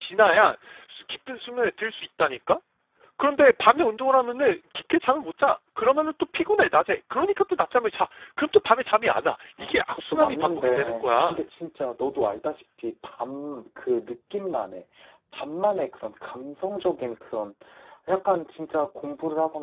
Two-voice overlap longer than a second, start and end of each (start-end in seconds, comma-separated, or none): 9.6-11.4